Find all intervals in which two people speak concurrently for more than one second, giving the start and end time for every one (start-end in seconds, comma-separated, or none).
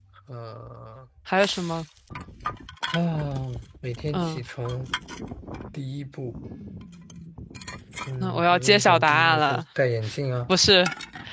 8.2-9.6